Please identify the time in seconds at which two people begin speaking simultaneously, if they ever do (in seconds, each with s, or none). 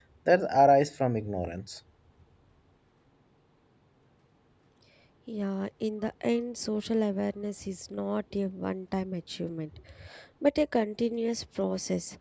none